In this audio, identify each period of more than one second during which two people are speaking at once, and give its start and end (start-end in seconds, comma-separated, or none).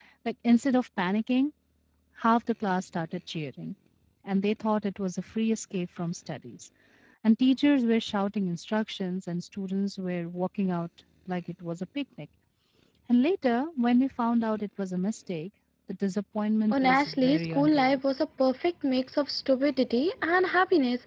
16.7-18.0